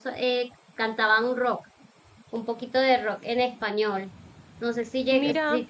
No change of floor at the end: Yes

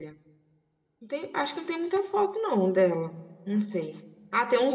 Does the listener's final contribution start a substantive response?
No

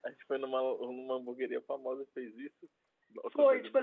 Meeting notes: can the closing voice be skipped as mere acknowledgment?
No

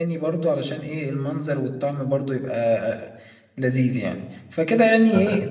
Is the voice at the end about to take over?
No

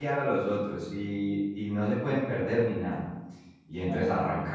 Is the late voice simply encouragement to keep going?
Yes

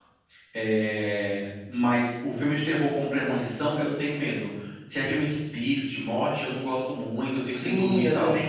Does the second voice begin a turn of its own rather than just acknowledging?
Yes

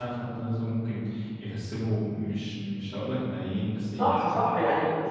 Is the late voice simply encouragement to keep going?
No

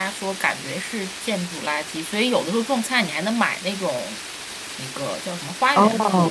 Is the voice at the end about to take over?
No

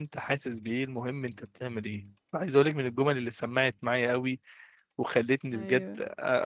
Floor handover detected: No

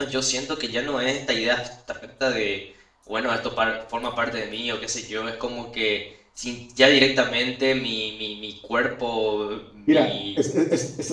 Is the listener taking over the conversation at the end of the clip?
Yes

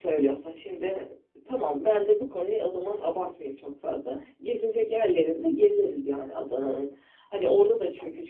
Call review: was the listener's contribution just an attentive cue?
Yes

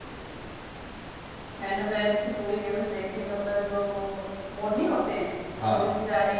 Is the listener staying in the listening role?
Yes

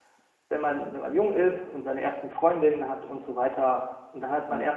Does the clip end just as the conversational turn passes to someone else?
No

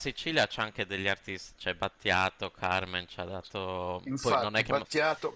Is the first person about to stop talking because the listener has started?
Yes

